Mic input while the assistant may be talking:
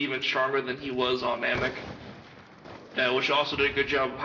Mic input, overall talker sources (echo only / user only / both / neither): echo only